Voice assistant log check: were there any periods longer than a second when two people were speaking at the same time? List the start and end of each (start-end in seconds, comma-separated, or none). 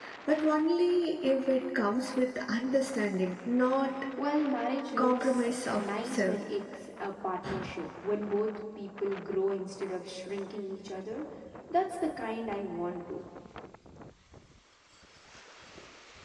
5.0-6.4